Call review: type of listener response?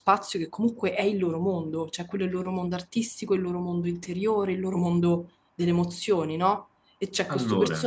listening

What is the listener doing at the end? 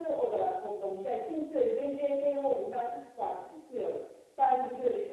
listening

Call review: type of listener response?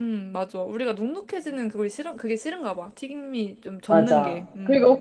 taking over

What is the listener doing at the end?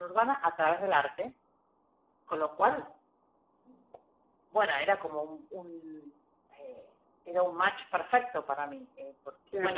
listening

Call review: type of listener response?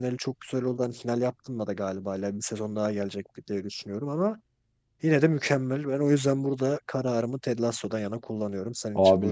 taking over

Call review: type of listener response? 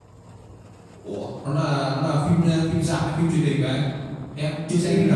taking over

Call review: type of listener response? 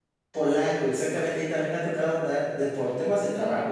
listening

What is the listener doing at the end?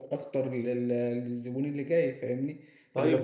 taking over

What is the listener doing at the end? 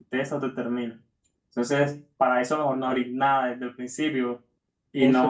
listening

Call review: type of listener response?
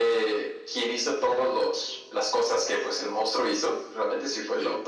listening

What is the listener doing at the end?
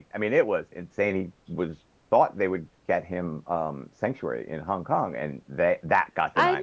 taking over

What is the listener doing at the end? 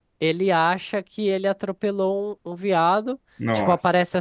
listening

